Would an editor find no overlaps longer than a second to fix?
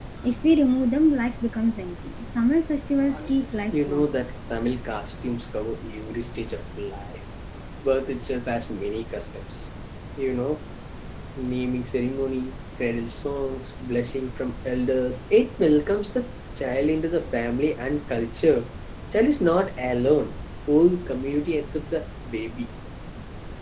Yes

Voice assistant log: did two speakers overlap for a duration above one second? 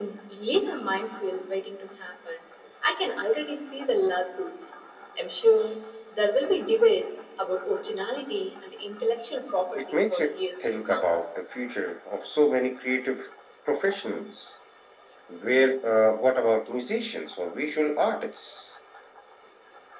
Yes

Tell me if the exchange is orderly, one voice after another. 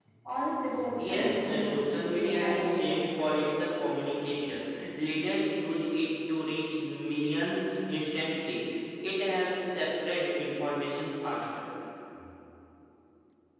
No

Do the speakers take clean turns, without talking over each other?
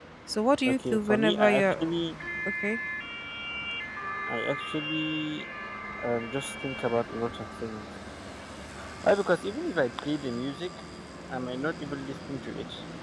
No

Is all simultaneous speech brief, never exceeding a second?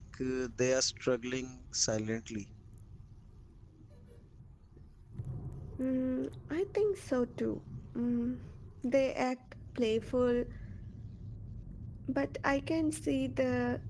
Yes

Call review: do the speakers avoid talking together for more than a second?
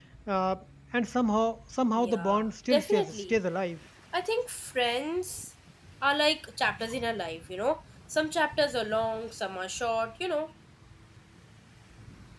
No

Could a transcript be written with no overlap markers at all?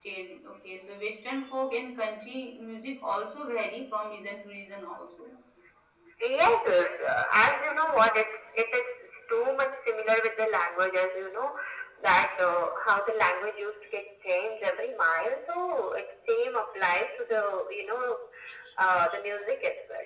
Yes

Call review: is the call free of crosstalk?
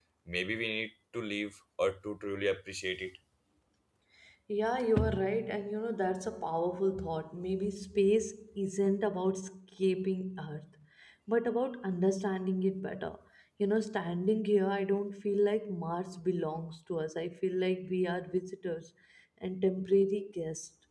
Yes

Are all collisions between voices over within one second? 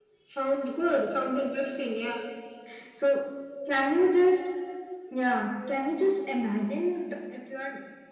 Yes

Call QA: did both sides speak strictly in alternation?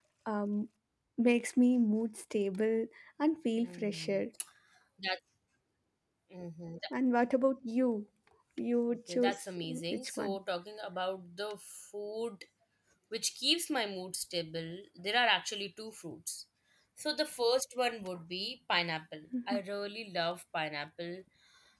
No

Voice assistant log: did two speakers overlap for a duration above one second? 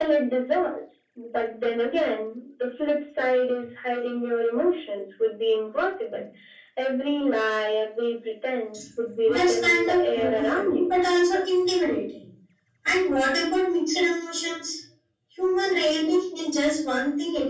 Yes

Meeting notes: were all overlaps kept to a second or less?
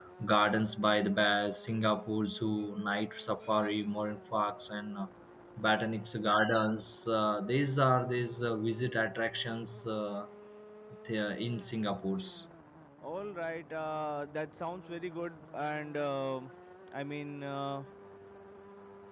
Yes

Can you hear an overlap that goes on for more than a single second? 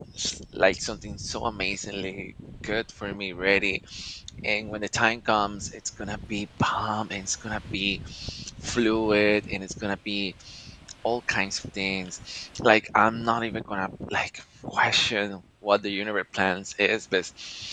No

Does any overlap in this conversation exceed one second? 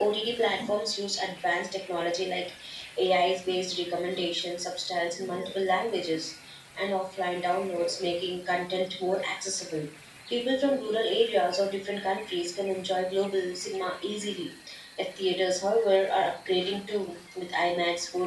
No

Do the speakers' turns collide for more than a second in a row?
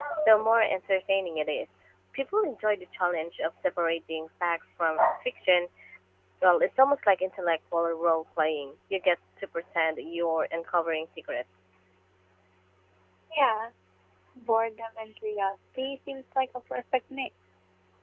No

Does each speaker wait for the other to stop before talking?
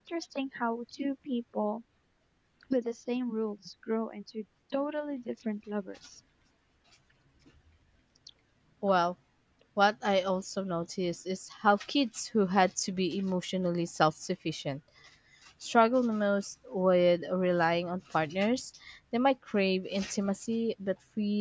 Yes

